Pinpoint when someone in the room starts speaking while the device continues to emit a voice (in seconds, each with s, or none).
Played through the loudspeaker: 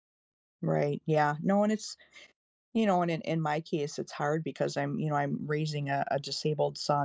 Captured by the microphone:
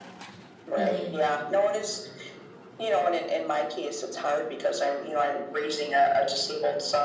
0.8 s